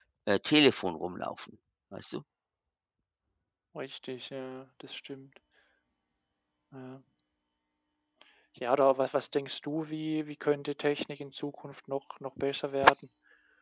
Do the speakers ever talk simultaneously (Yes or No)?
No